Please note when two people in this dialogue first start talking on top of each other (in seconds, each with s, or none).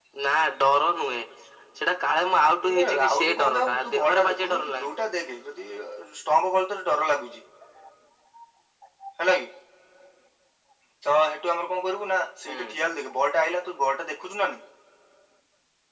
2.7 s